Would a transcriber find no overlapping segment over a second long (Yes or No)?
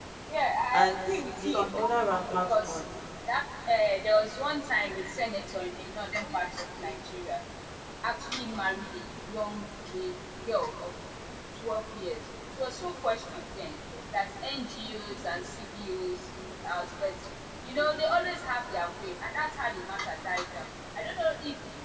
No